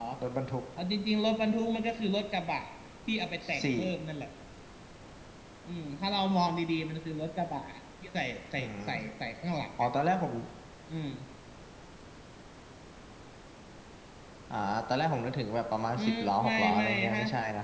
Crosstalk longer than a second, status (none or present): present